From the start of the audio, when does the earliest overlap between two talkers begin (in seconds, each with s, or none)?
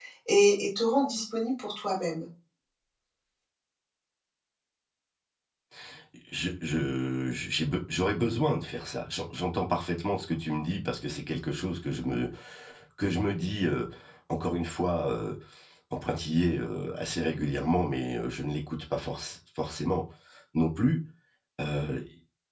none